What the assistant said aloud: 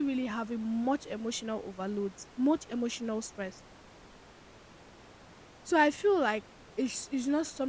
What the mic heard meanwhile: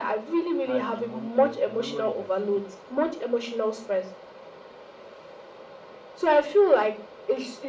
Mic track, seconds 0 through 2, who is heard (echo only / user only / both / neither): both